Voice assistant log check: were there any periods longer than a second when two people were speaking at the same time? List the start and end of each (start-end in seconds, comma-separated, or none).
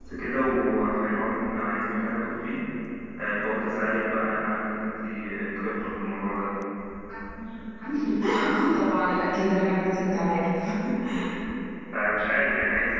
none